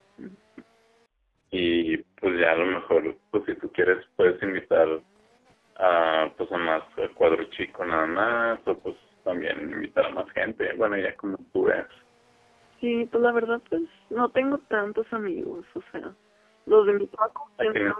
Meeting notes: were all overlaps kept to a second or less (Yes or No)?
Yes